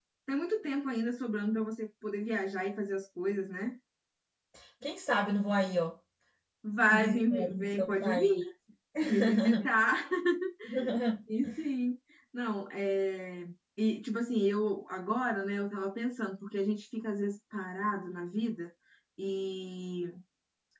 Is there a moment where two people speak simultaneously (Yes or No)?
Yes